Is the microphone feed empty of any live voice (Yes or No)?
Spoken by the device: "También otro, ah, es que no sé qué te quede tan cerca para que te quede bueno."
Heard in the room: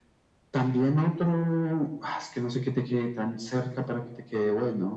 Yes